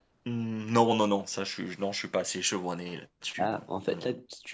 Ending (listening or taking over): taking over